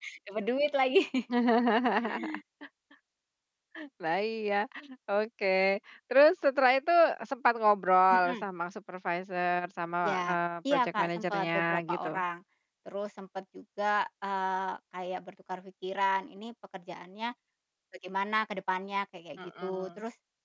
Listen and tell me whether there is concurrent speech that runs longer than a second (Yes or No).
Yes